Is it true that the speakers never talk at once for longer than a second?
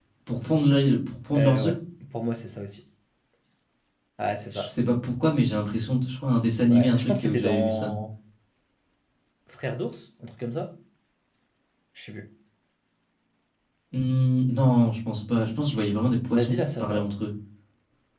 No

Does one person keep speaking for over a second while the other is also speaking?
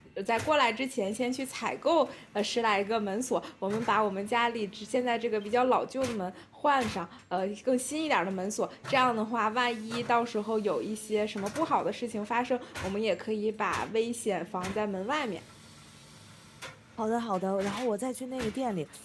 No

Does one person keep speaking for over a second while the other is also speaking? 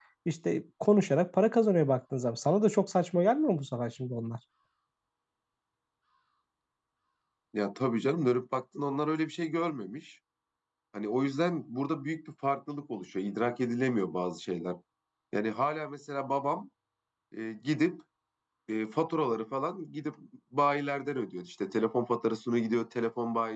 No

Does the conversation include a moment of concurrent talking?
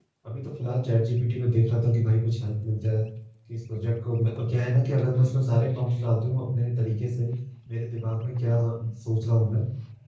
No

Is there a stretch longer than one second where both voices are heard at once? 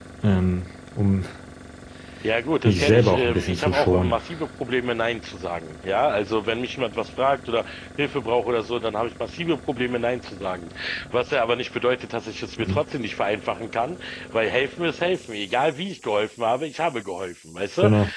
Yes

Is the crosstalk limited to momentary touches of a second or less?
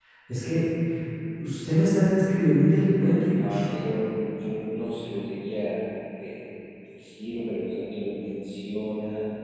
Yes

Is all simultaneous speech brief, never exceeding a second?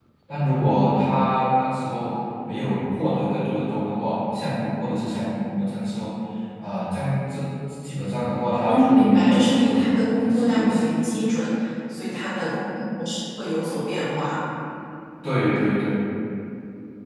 No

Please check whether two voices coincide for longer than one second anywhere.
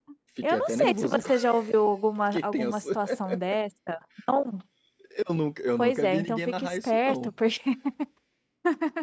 Yes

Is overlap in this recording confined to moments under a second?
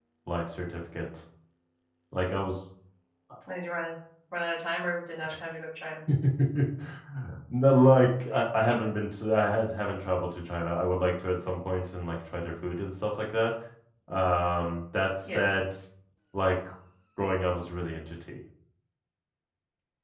Yes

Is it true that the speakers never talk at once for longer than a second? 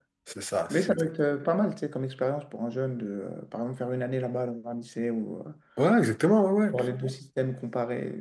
Yes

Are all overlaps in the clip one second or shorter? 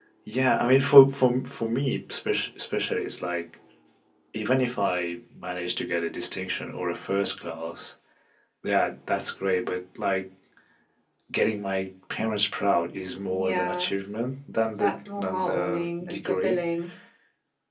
No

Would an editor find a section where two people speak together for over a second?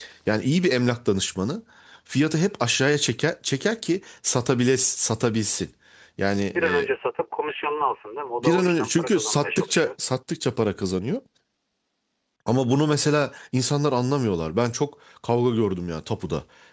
Yes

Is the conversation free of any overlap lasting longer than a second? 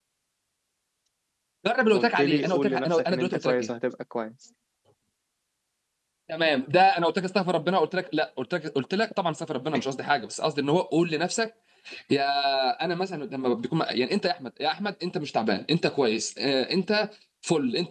No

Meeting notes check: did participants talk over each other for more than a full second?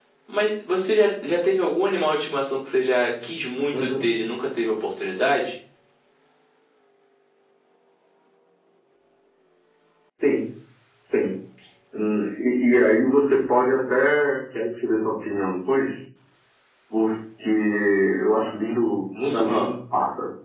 No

